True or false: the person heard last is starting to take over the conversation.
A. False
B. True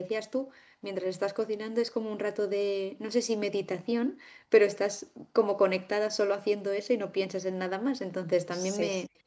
A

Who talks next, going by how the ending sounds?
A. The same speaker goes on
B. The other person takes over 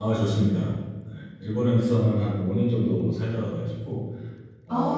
A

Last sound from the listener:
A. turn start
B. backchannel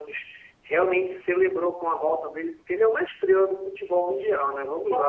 B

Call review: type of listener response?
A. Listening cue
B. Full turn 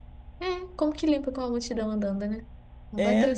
B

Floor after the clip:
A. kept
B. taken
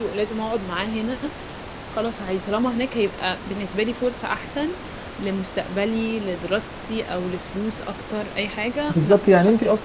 B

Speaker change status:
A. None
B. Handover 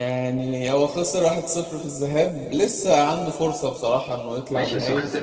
B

